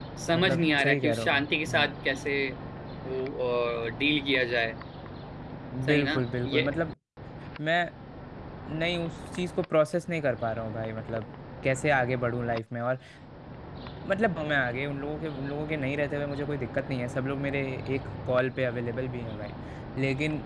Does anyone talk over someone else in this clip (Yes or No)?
Yes